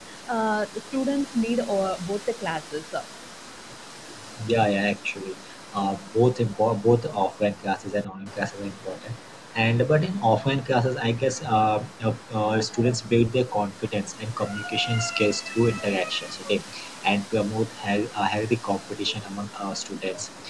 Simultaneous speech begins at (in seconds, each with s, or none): none